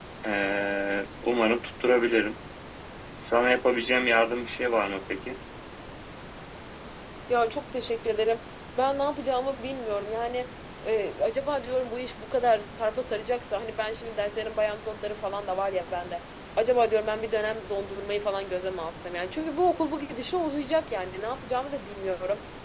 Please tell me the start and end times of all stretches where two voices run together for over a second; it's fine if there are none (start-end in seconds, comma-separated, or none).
none